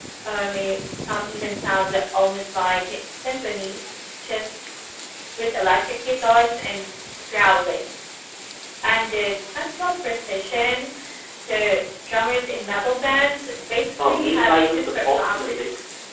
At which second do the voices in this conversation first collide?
14.0 s

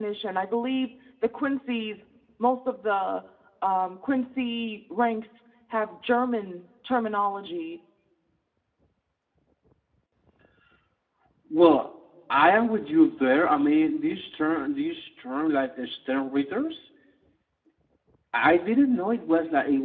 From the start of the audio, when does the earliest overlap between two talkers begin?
none

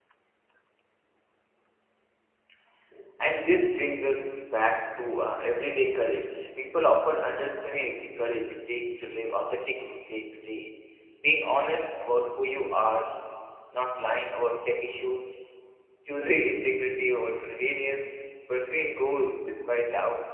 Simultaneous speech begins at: none

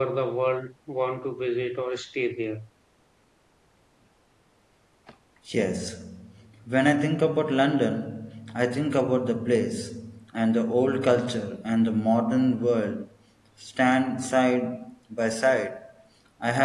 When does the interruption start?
none

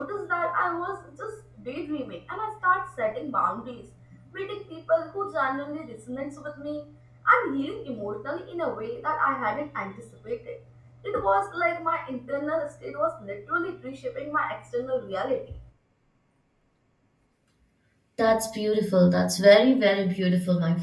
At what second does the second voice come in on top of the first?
none

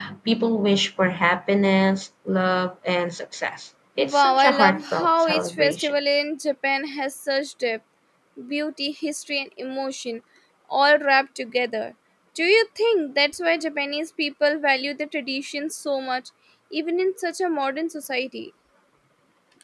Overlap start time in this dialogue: 4.0 s

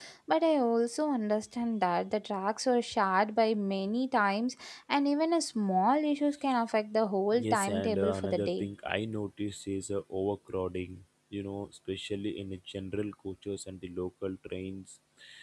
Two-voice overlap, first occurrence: 7.3 s

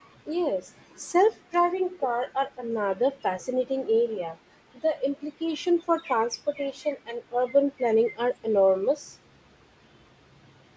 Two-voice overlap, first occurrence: none

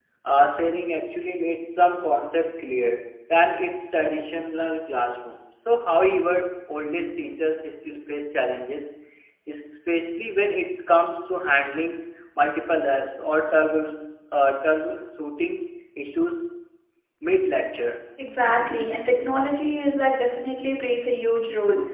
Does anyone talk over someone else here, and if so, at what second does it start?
none

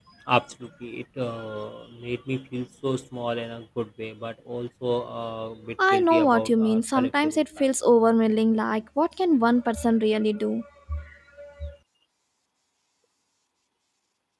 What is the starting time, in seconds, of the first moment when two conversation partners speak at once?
5.8 s

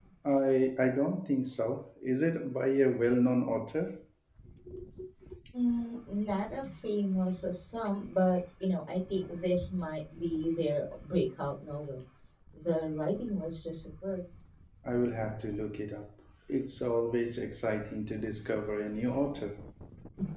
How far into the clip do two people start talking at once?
none

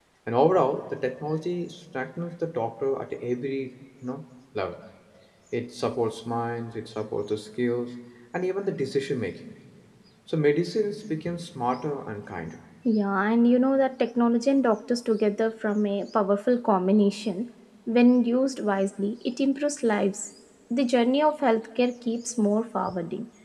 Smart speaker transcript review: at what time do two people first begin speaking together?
none

